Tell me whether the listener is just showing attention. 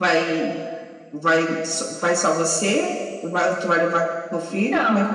No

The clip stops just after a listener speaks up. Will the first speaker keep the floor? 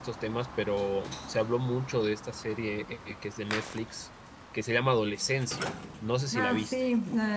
No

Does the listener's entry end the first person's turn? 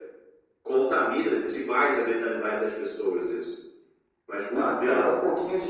Yes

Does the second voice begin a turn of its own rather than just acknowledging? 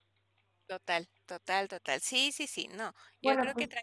No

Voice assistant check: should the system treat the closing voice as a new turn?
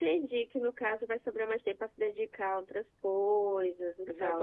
Yes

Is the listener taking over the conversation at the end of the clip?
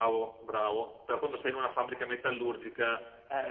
No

